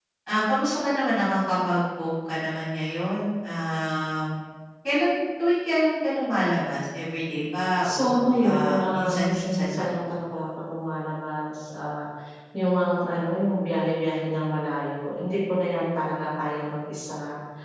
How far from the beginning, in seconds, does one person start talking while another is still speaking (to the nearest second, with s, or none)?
8 s